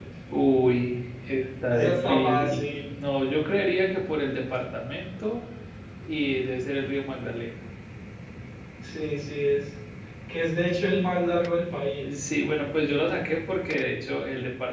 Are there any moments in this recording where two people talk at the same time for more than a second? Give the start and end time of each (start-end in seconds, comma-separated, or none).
1.7-2.9